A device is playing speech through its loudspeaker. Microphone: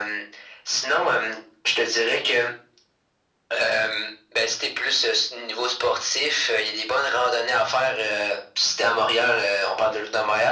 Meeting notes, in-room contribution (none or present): none